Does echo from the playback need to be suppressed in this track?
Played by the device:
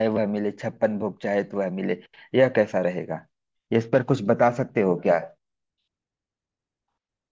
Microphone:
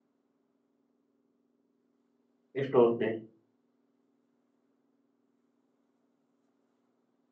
No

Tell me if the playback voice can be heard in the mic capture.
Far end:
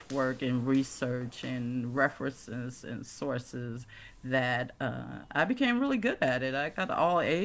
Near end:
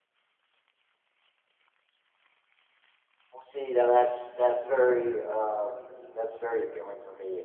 No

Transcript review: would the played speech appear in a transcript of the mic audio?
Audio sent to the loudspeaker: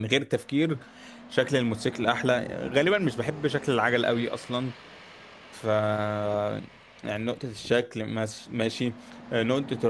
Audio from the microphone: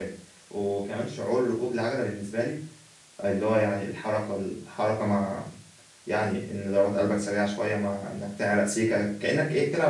No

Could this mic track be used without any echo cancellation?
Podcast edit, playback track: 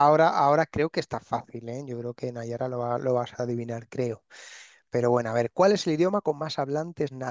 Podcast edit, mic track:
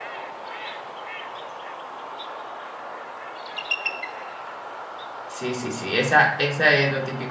Yes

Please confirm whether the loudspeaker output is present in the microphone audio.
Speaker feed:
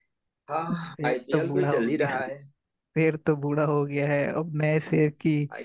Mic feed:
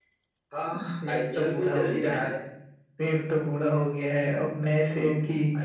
Yes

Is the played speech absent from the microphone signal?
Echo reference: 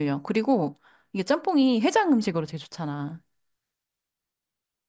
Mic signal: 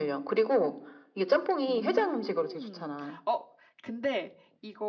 No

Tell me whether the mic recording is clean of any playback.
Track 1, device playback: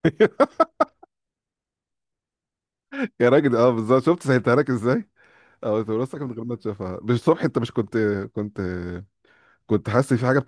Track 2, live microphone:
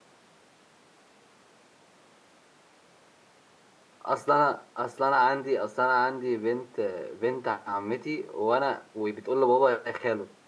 Yes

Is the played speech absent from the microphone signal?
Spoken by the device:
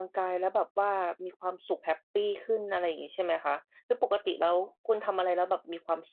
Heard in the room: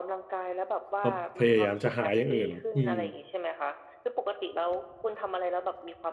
No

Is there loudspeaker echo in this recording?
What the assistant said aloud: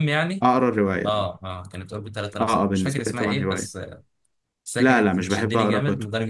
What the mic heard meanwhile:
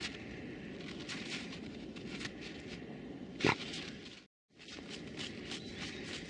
No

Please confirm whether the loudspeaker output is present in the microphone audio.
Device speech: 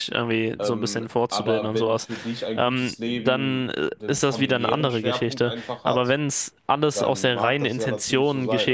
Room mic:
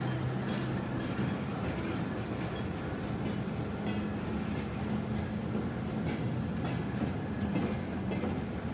No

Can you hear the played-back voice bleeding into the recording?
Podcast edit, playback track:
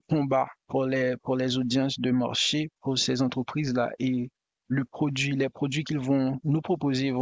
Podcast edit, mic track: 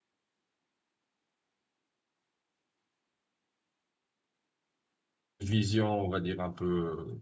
No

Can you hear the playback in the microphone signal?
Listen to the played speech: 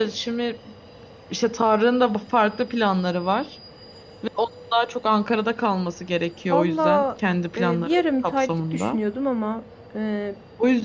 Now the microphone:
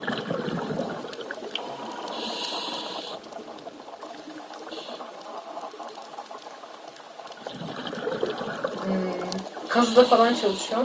No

